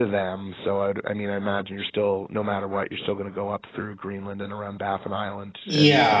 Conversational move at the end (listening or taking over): taking over